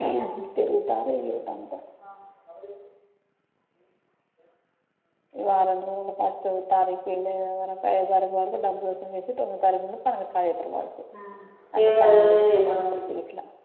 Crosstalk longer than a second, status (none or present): present